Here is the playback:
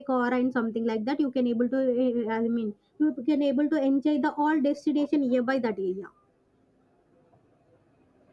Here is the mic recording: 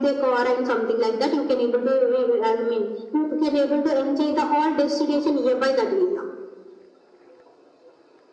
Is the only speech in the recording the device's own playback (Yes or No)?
Yes